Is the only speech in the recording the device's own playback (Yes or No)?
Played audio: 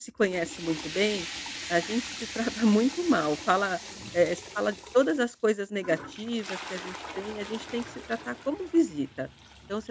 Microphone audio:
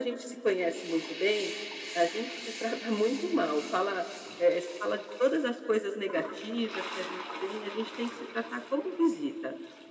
Yes